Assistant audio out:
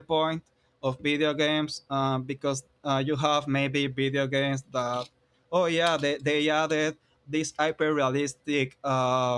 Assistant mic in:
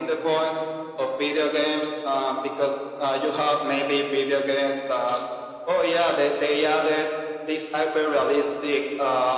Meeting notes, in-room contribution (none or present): none